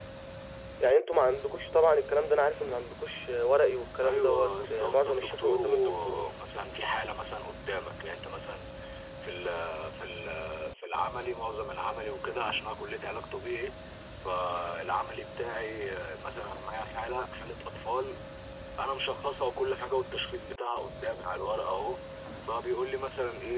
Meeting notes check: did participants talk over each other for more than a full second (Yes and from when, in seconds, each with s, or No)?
Yes, from 4.0 s